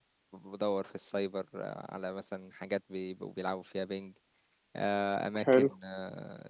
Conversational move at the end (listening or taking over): listening